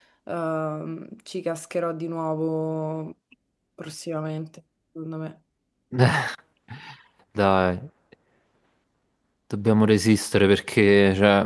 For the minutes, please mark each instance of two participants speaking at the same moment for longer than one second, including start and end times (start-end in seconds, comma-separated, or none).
none